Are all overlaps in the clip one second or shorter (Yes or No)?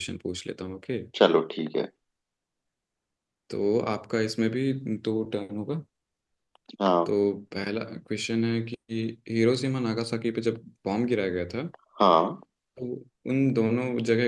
Yes